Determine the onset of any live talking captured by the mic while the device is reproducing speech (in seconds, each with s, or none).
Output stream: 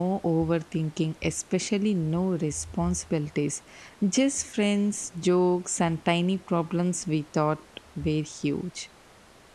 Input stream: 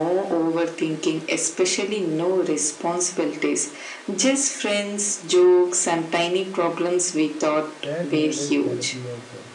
7.8 s